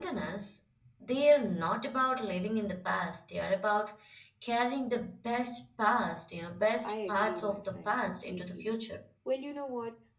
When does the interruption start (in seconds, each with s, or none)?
6.8 s